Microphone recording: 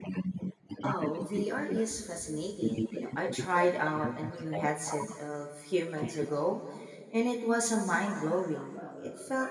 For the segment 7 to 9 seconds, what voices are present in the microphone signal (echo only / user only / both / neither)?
user only